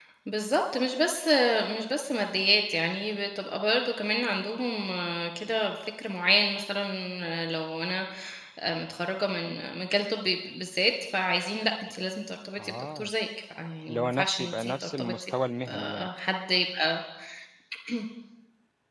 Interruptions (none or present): present